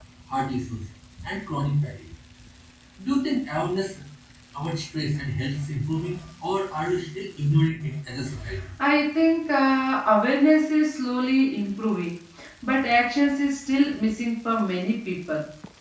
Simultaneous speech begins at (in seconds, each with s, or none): none